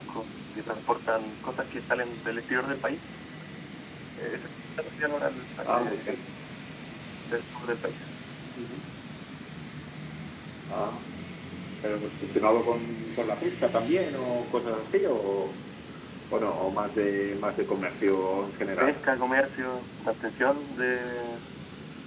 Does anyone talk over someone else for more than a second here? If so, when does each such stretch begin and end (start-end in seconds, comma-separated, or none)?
none